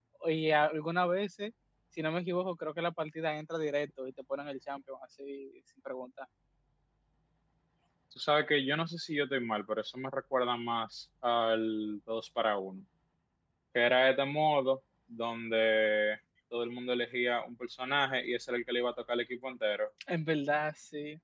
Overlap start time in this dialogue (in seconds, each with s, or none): none